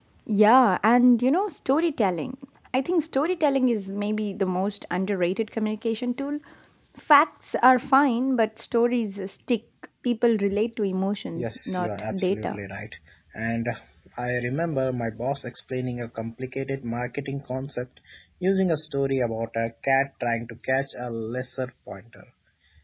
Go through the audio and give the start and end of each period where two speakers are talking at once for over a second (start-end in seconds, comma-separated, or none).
11.4-12.6